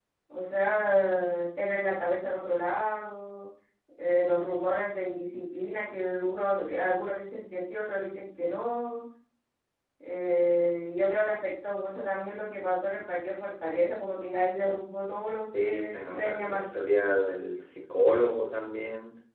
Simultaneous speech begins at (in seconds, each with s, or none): 15.5 s